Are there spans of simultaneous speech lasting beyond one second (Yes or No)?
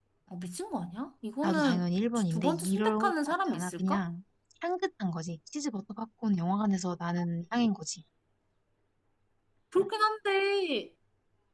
Yes